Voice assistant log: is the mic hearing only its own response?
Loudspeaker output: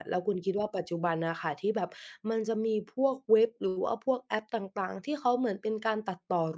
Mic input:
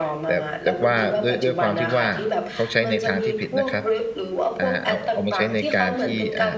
No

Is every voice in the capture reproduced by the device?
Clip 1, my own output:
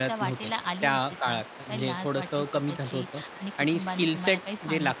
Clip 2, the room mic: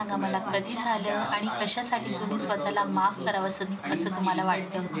No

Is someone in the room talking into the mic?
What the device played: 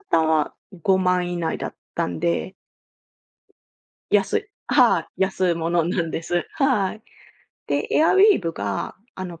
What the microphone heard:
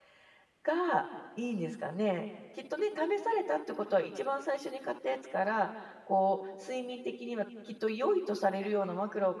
Yes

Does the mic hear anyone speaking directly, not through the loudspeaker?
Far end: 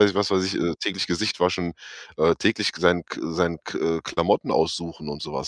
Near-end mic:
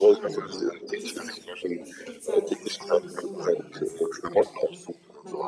Yes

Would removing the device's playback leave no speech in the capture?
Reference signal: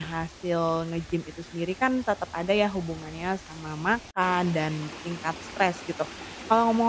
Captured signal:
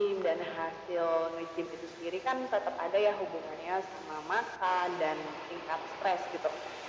Yes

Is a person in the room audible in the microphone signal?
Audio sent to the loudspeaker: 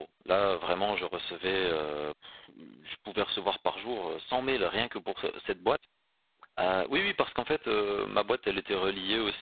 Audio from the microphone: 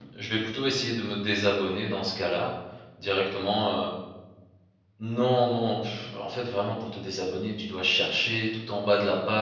Yes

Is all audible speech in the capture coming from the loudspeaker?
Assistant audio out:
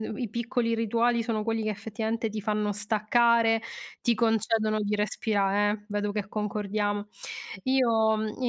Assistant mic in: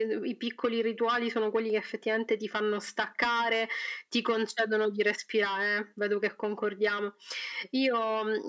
Yes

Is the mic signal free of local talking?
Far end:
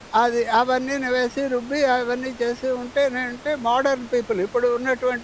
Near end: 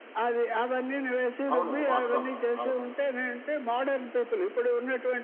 No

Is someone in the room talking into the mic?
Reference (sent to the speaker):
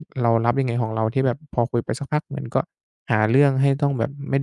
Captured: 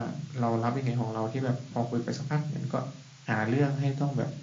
No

